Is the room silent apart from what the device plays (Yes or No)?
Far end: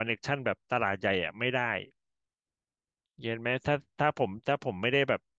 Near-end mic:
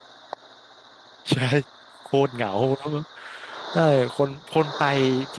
No